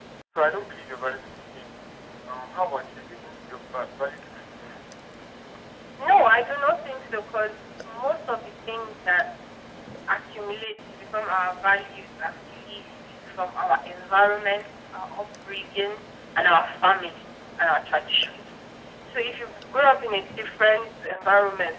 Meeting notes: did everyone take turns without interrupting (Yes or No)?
Yes